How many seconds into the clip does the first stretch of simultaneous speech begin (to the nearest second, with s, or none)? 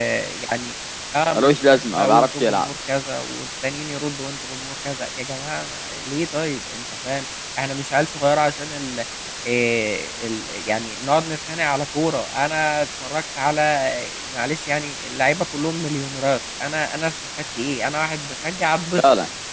1 s